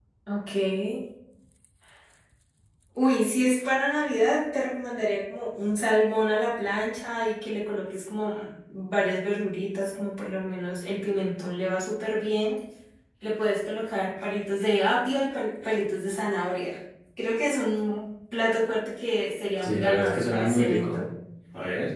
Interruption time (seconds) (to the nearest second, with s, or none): 20 s